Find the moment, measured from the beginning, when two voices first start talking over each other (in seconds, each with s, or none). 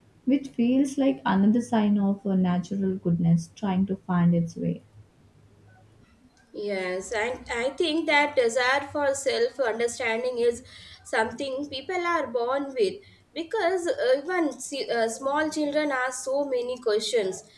none